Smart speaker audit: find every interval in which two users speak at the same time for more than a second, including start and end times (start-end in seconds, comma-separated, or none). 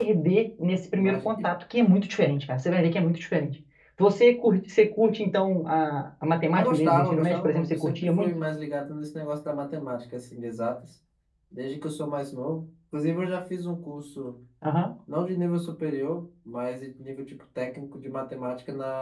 6.5-8.3